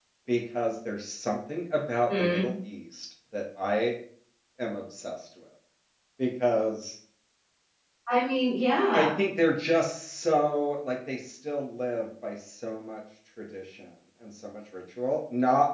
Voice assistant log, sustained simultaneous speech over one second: none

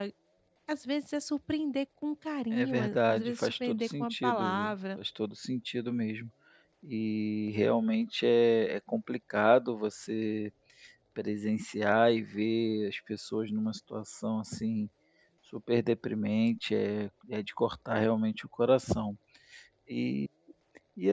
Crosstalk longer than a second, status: present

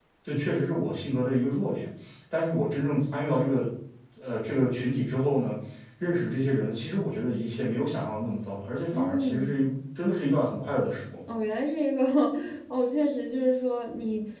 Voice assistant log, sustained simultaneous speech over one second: none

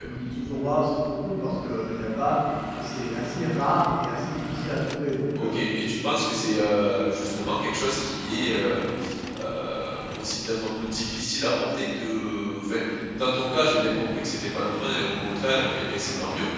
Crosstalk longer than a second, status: none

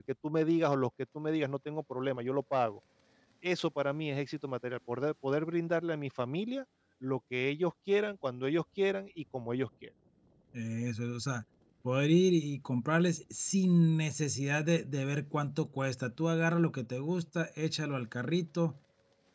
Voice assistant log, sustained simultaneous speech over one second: none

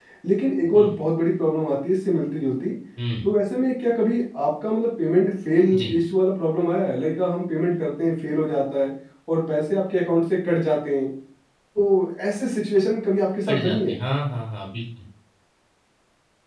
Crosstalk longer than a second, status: none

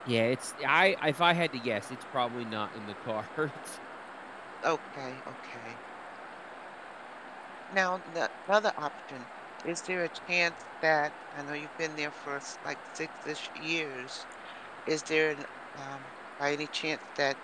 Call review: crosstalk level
none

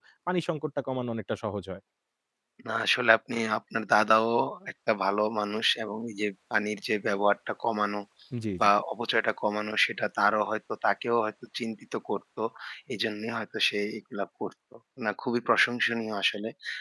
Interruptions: none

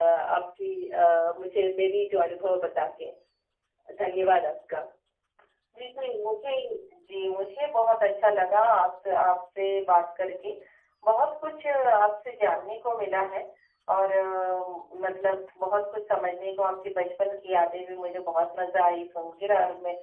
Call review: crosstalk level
none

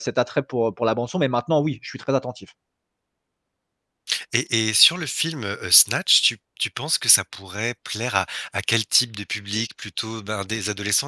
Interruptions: none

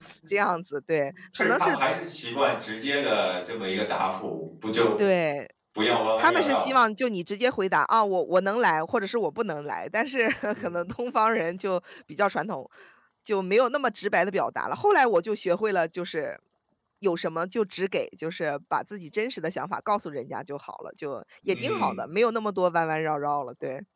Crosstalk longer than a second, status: none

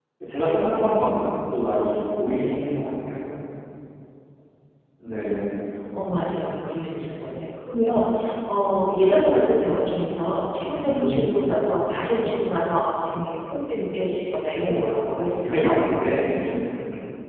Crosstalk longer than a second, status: none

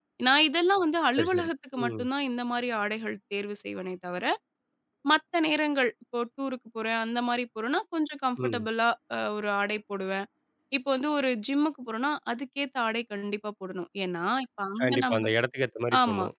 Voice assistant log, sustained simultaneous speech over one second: none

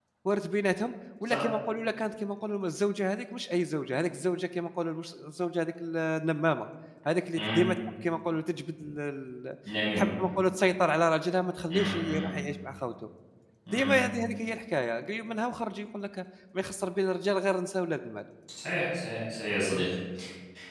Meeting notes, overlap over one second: none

